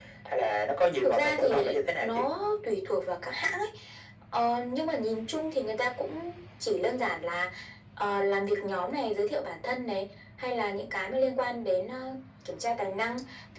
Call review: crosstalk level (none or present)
present